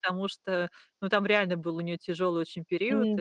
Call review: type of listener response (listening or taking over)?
listening